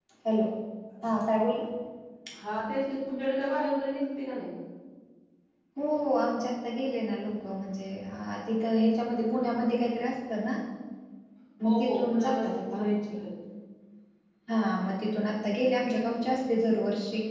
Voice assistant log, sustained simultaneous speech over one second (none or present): present